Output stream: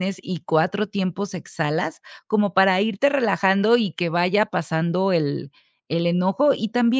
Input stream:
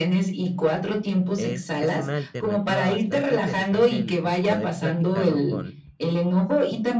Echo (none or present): present